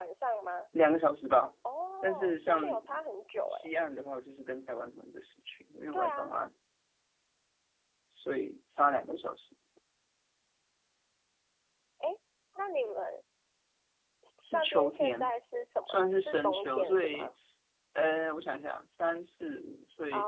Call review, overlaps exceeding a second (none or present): present